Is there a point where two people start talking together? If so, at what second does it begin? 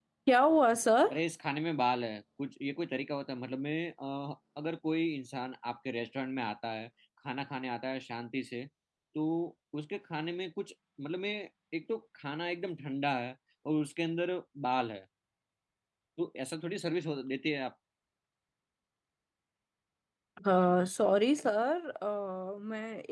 none

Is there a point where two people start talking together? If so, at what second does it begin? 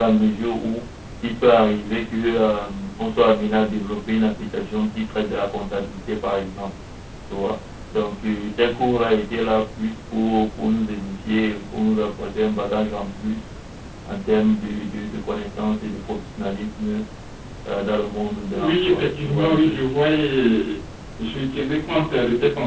19 s

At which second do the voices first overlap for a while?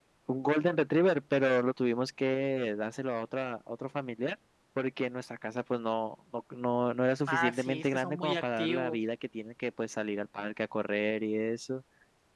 7 s

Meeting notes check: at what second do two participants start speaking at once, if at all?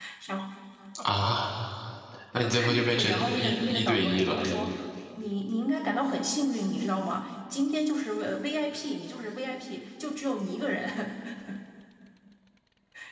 2 s

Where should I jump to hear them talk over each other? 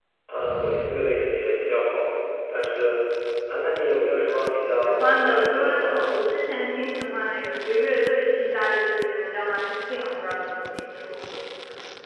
5 s

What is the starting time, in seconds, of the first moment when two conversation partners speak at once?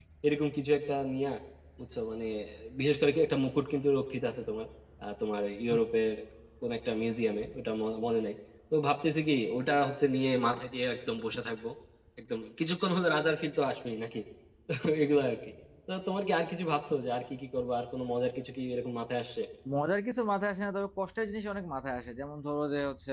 none

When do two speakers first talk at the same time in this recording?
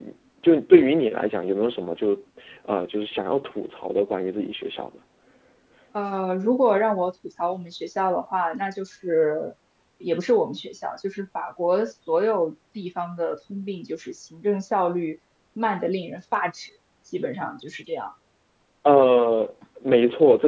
none

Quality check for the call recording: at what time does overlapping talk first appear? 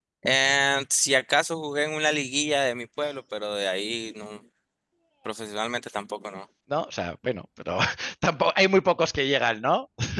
none

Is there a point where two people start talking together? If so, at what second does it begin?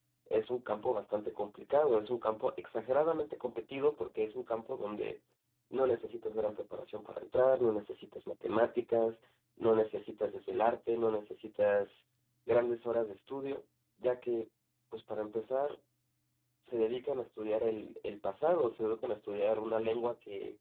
none

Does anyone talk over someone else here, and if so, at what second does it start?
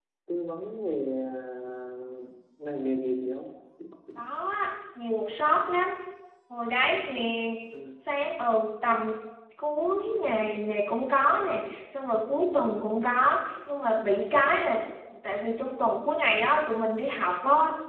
none

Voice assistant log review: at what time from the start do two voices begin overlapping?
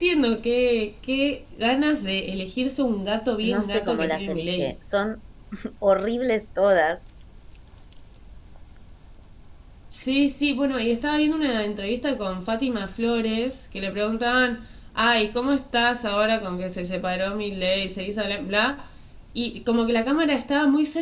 3 s

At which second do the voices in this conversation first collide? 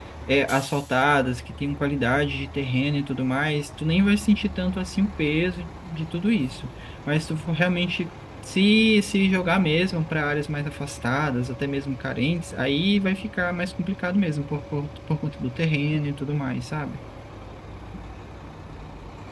none

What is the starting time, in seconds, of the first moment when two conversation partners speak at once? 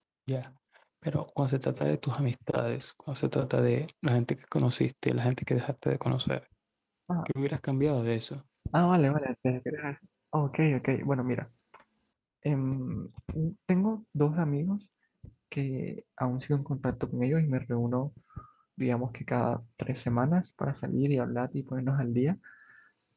none

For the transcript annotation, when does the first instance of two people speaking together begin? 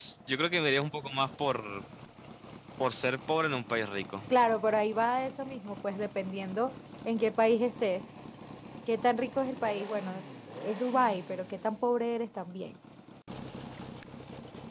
none

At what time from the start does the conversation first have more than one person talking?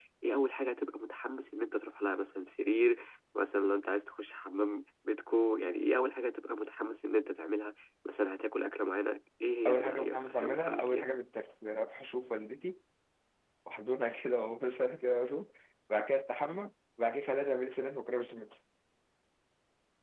10 s

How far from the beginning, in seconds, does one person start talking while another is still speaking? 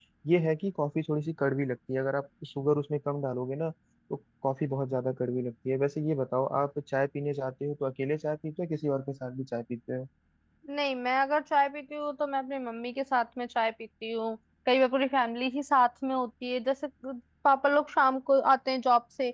none

